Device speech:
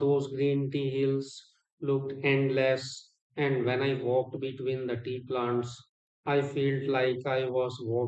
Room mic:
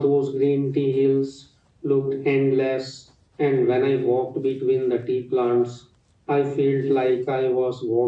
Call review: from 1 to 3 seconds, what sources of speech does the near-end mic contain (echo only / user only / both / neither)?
echo only